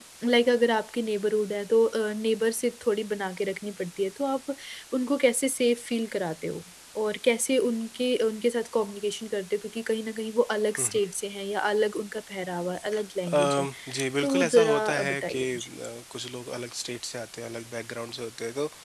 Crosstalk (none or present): present